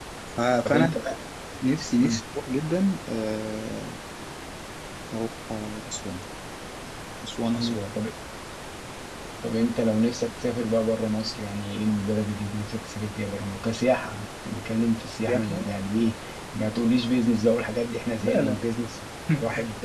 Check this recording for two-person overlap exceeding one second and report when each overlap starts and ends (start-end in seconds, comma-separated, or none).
none